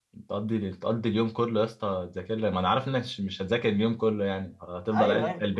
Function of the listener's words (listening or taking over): taking over